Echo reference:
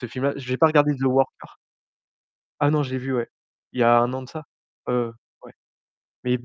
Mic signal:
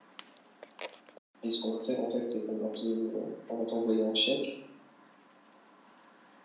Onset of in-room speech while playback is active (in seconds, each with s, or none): 1.4 s